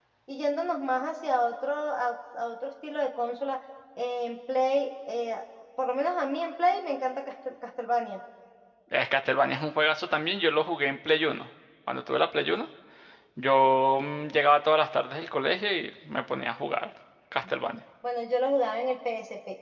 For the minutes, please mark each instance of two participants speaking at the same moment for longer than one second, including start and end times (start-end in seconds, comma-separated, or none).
none